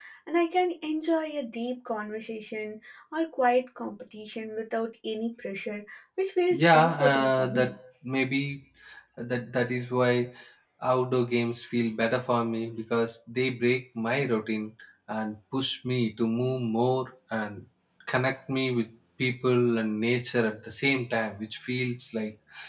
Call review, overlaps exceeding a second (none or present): present